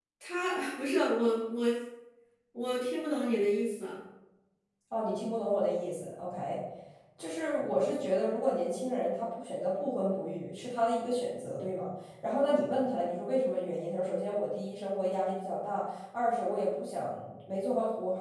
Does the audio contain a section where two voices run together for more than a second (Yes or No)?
No